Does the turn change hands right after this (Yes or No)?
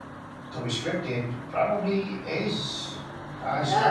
Yes